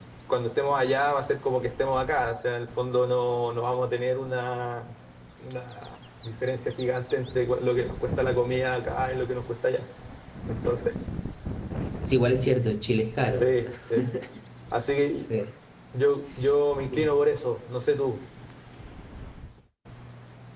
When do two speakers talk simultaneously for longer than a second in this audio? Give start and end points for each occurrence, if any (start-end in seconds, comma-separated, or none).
none